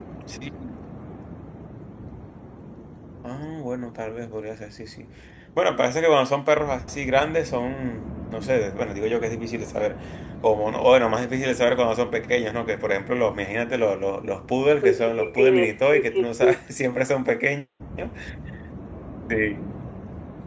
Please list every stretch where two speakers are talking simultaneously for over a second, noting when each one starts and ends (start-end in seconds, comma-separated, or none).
14.8-16.6